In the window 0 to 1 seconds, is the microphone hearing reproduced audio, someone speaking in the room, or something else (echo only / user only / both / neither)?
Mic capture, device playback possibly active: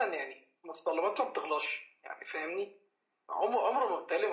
echo only